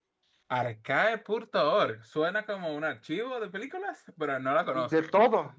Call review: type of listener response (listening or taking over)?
taking over